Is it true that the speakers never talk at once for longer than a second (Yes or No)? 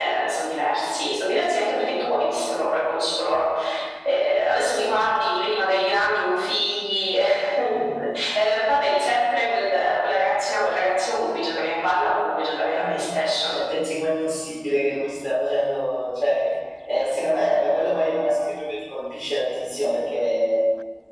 Yes